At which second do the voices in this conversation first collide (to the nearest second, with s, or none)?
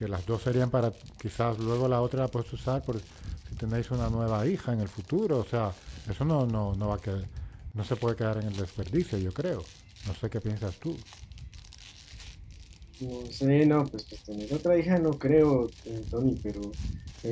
none